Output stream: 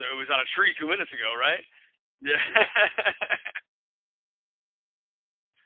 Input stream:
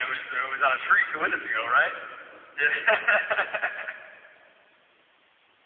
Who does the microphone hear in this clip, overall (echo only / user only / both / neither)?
echo only